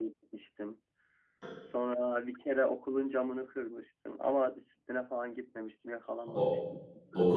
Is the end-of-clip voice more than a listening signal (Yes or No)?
Yes